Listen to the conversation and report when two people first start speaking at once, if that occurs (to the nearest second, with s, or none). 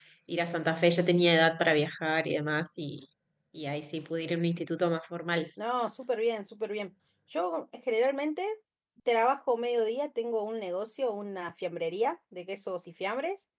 none